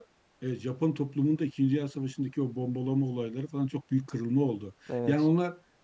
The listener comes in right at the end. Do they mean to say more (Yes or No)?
No